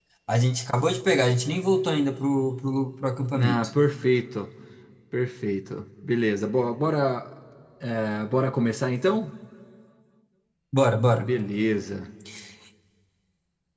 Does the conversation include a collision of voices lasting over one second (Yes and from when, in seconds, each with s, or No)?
No